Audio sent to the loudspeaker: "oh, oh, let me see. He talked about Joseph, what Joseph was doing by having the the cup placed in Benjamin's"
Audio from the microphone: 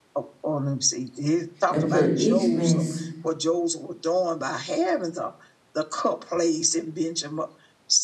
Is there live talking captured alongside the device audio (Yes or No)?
Yes